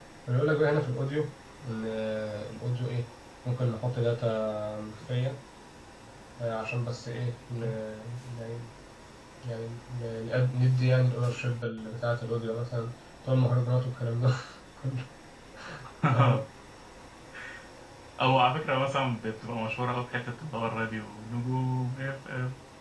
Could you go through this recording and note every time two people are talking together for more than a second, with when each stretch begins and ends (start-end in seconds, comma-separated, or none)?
none